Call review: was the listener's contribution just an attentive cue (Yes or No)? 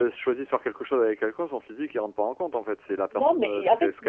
No